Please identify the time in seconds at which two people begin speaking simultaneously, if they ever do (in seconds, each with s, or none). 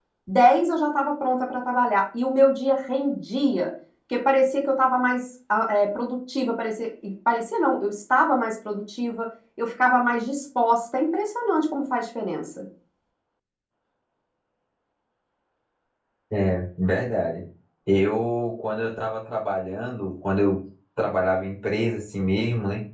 none